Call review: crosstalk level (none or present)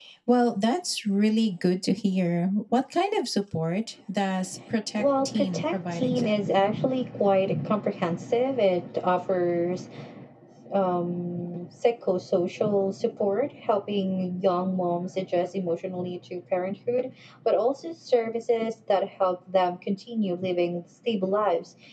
present